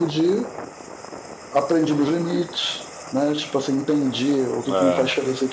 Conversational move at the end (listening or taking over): listening